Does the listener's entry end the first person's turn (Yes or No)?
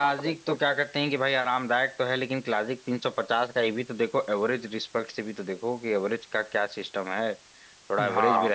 No